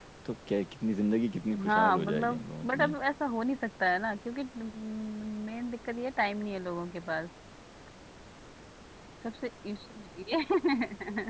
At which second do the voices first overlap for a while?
1.6 s

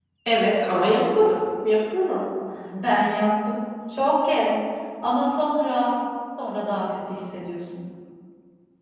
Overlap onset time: none

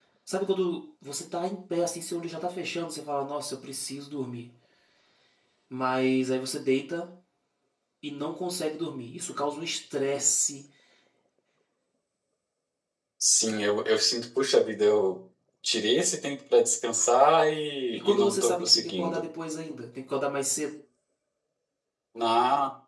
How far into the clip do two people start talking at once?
17.9 s

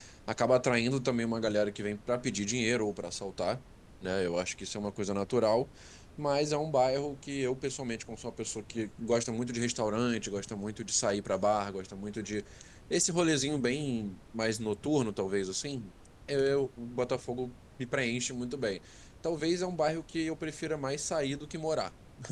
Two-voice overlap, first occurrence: none

